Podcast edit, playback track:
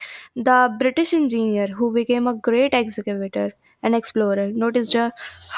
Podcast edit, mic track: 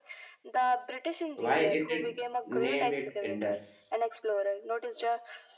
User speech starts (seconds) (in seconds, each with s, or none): 1.3 s